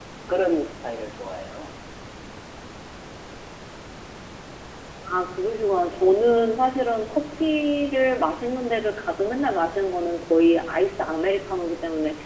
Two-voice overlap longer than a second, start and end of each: none

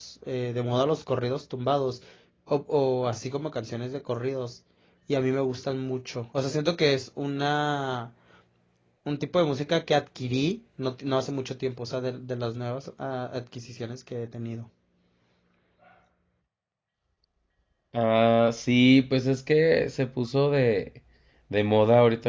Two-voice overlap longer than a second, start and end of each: none

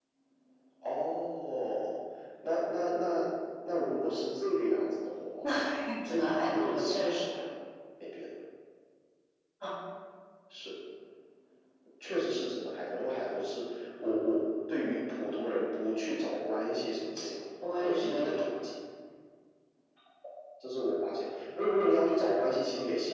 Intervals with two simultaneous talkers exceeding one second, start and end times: 6.1-7.4

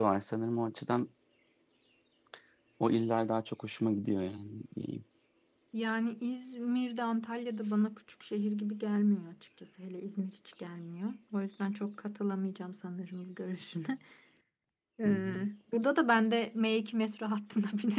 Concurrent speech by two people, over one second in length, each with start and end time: none

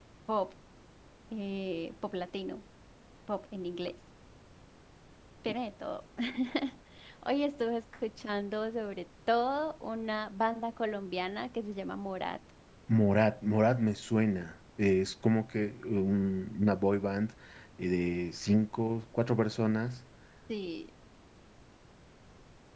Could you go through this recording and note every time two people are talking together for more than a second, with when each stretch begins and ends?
none

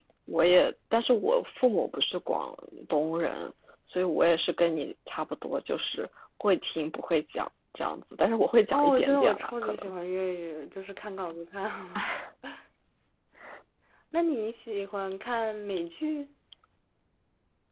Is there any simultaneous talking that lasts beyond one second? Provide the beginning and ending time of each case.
8.7-9.9

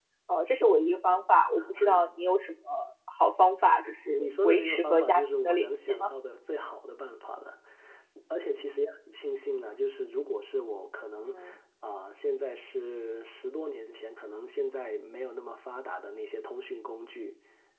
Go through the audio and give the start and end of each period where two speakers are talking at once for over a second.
4.2-6.1

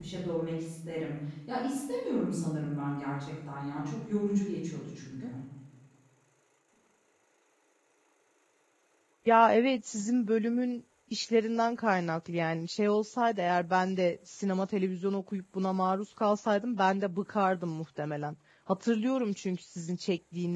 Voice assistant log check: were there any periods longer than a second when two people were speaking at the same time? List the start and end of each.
none

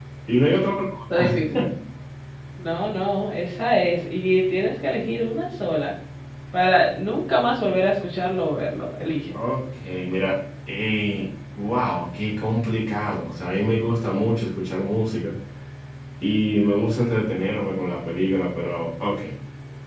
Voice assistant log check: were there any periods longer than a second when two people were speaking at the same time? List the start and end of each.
none

